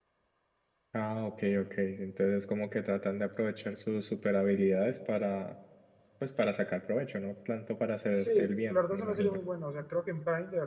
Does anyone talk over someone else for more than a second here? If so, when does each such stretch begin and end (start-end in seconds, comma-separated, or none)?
8.2-9.4